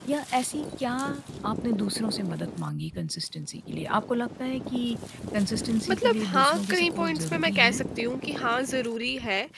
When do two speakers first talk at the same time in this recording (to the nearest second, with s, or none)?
6 s